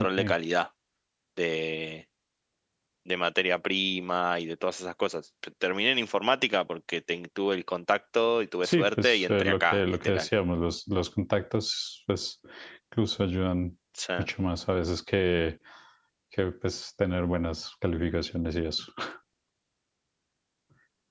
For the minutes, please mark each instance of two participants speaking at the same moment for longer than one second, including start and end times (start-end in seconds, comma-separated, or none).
8.6-10.2